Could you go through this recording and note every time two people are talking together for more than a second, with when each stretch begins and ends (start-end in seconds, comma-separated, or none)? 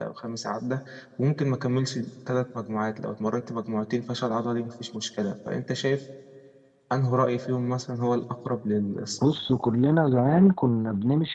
none